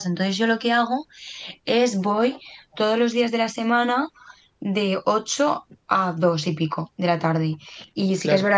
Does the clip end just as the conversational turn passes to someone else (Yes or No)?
No